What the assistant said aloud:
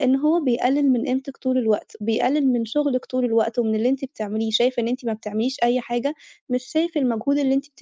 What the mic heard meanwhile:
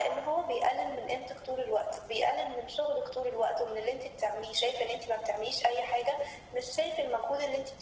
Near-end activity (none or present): none